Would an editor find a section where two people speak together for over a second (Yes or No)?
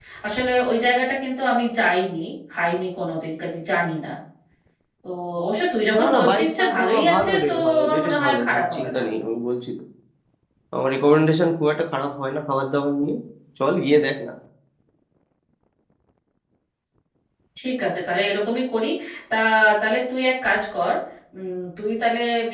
Yes